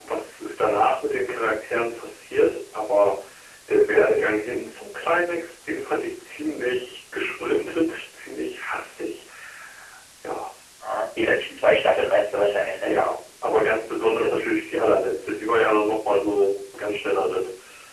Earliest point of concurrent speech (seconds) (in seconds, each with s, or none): none